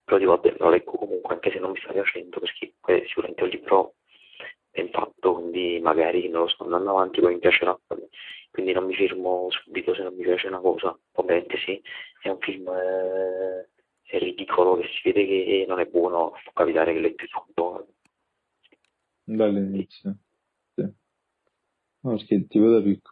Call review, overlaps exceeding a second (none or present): none